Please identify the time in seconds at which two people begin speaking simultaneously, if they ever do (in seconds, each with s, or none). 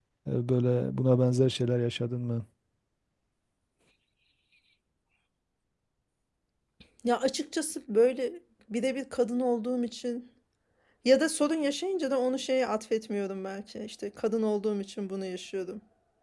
none